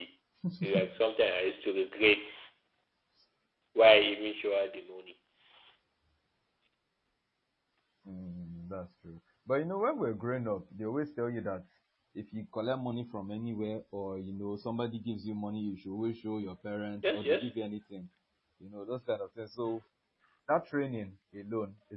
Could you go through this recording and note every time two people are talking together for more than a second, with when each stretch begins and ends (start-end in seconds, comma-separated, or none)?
none